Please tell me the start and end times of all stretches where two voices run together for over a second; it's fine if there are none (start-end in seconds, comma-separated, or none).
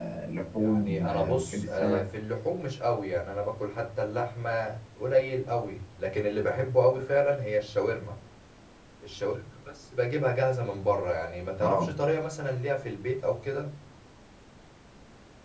0.6-2.0